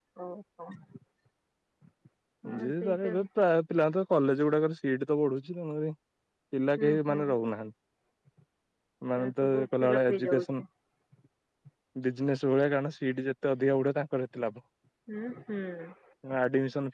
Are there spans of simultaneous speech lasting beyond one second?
Yes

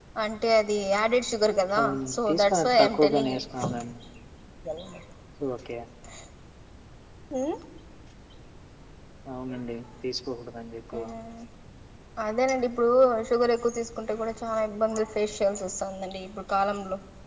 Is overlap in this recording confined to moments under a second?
No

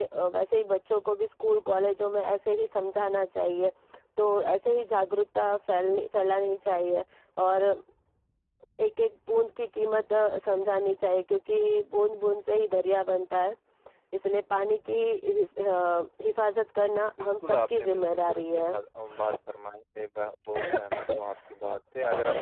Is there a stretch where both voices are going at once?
Yes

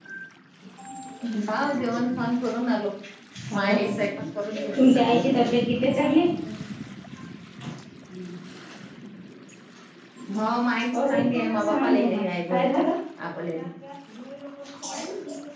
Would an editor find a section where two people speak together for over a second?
Yes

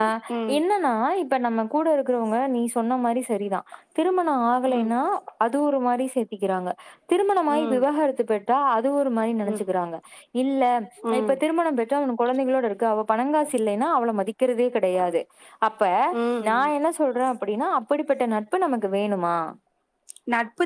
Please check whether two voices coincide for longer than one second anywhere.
No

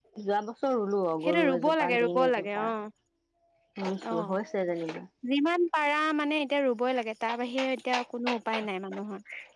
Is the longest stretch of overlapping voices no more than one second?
No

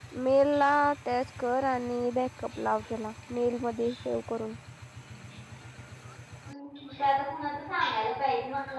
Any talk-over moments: No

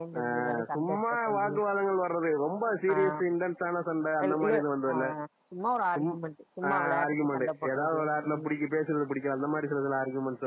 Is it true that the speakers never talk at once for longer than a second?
No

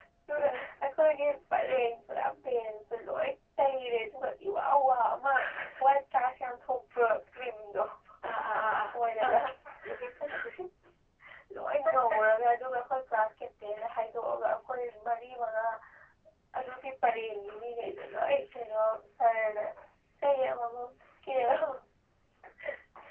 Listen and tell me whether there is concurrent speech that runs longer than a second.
No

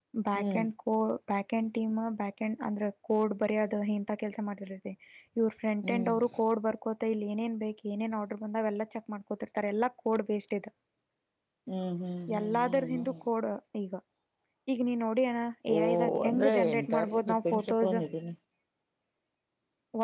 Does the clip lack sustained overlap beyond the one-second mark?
No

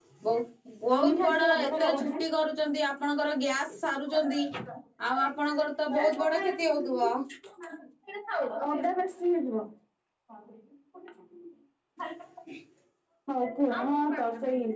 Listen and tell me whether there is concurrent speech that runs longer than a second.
Yes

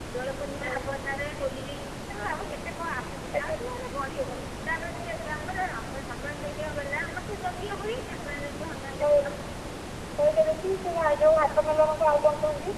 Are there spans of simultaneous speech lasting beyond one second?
No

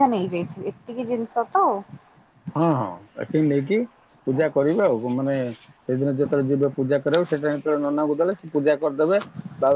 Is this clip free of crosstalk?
Yes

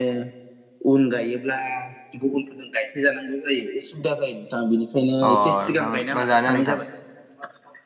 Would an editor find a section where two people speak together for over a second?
Yes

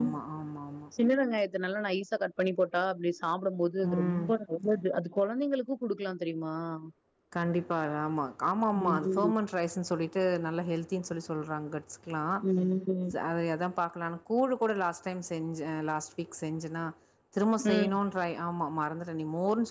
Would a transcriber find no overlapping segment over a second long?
Yes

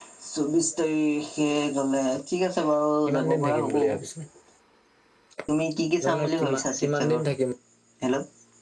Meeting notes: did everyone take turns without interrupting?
No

